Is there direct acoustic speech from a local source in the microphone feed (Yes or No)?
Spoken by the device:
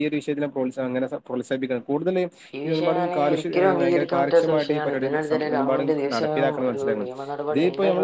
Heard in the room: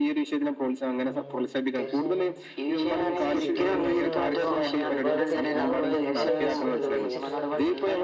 Yes